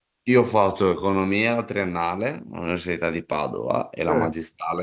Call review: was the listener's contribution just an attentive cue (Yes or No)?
Yes